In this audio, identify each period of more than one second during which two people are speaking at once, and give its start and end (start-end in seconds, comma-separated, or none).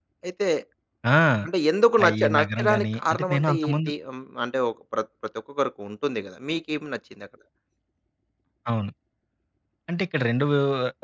2.0-3.9